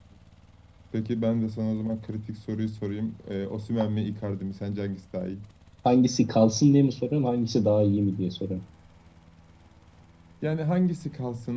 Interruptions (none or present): none